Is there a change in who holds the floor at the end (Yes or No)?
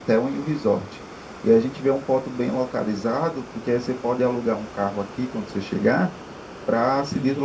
No